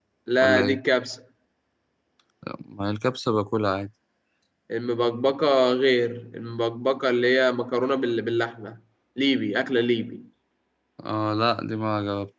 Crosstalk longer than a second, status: none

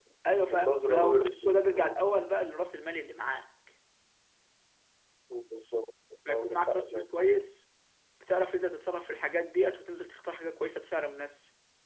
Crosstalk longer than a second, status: present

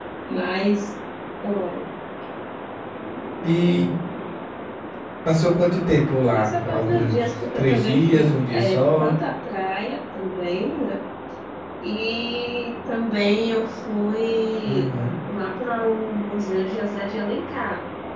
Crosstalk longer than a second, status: present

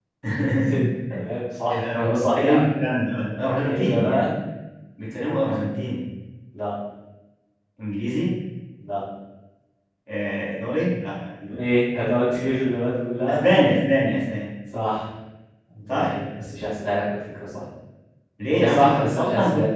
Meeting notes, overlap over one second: present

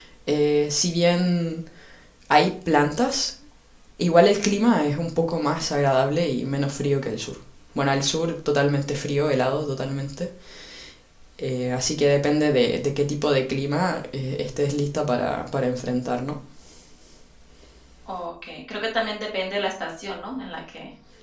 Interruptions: none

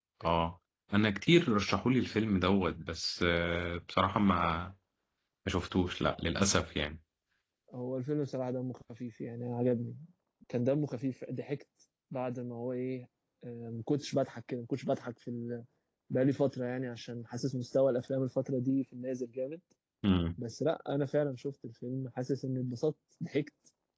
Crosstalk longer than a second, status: none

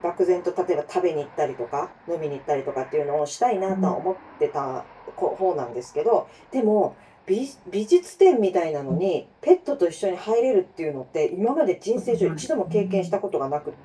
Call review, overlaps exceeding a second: present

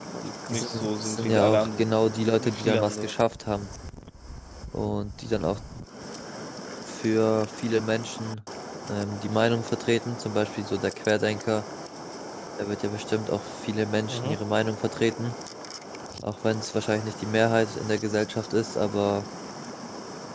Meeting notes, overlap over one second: present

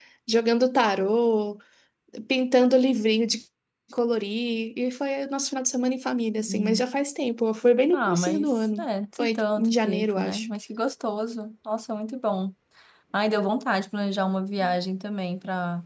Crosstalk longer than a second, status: present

